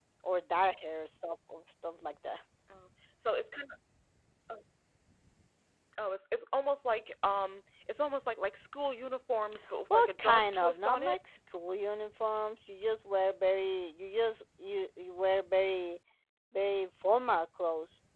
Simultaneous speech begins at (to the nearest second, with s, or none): 10 s